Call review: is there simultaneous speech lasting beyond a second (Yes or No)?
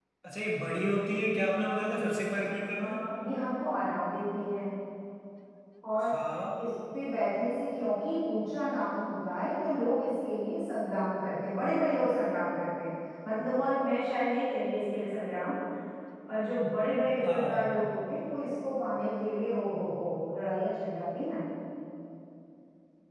No